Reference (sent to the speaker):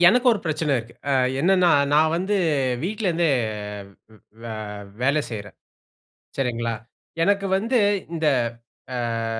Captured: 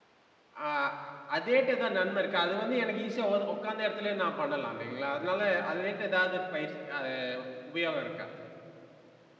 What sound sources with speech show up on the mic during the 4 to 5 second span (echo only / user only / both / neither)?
user only